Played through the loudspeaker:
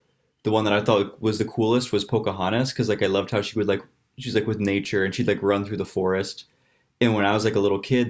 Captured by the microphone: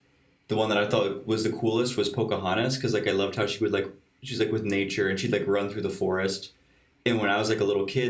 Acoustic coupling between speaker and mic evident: Yes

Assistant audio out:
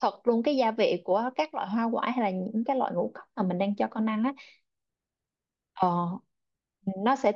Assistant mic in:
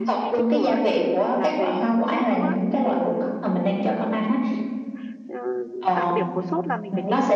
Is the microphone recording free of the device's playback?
No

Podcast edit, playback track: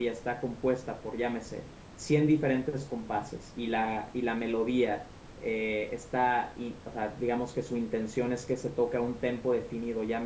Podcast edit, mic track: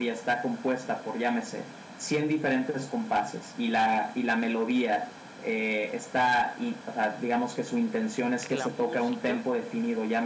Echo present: Yes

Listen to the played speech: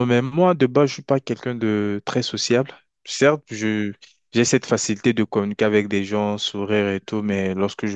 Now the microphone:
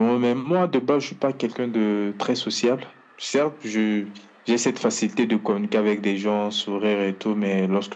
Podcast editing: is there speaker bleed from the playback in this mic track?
Yes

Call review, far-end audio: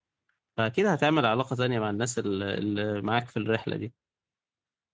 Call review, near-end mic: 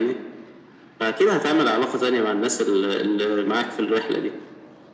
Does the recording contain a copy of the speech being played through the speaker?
Yes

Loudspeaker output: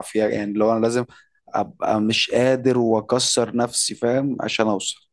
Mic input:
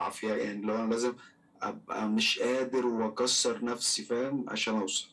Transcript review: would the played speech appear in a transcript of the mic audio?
Yes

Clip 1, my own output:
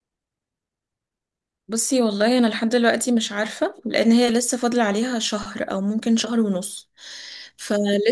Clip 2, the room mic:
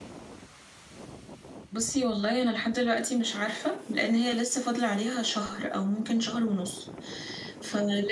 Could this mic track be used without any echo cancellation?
No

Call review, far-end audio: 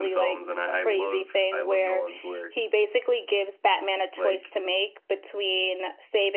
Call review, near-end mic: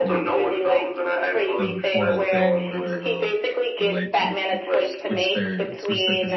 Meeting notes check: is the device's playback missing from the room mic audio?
No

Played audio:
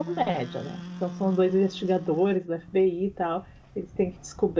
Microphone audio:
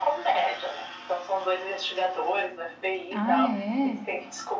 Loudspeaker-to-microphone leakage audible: Yes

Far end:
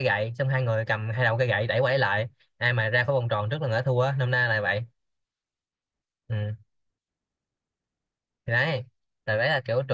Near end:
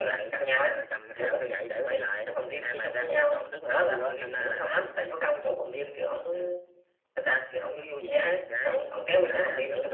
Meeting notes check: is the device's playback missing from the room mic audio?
No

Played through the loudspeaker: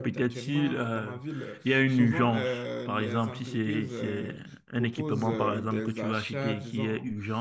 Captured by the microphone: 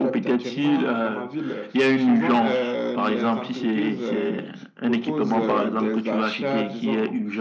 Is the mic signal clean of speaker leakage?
No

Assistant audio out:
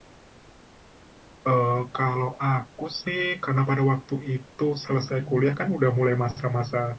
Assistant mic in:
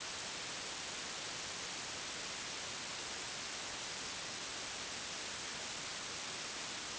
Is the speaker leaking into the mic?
No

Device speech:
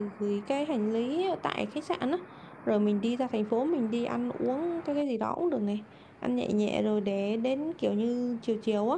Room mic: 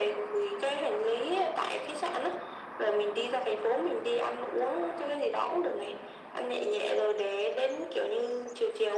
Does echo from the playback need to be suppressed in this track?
Yes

